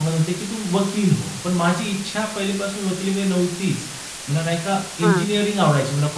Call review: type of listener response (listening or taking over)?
listening